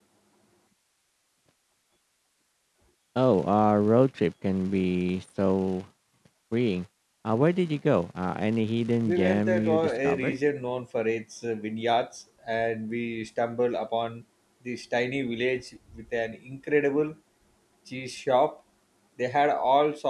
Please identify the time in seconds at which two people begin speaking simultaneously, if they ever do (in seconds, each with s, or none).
9.0 s